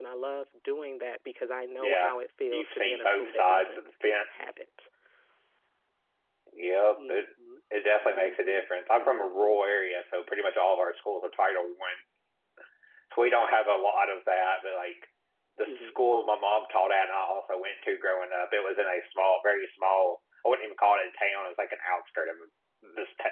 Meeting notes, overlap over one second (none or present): present